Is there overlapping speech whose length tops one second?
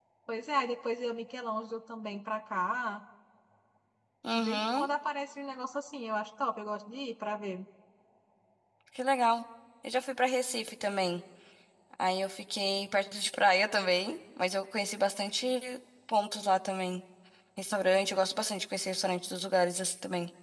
No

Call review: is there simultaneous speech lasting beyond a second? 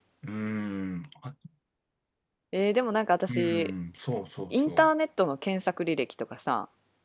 No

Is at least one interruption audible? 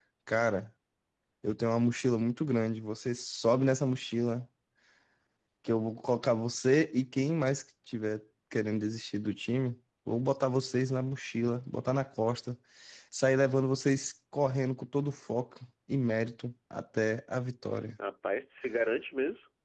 No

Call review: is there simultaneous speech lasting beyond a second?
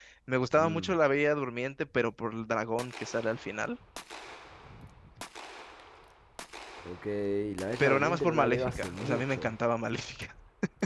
Yes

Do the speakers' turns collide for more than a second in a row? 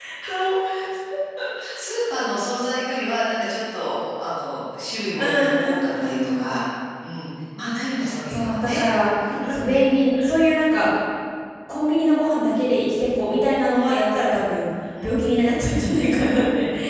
Yes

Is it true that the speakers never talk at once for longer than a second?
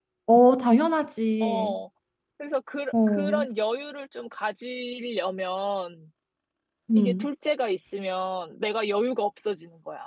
Yes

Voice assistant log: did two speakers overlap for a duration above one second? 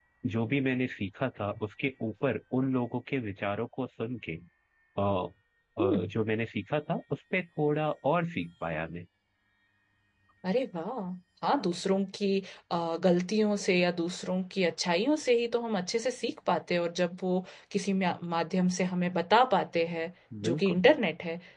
No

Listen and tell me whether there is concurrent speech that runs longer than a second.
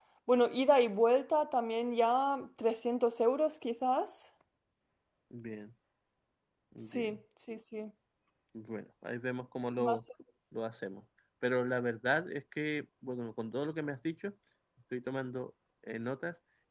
No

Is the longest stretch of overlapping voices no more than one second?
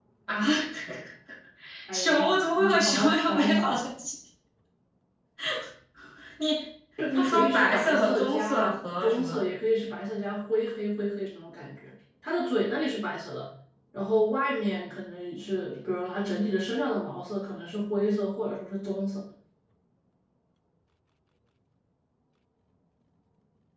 No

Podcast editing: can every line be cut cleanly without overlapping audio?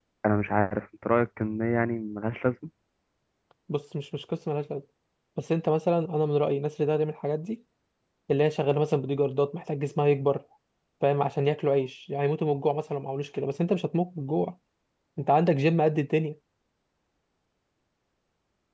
Yes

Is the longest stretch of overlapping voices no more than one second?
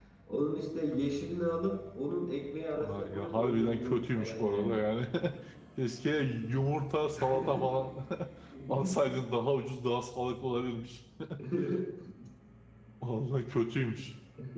No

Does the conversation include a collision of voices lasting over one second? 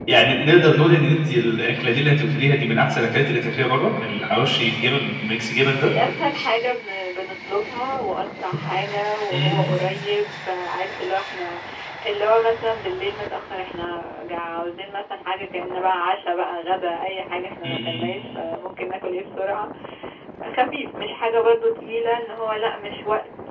No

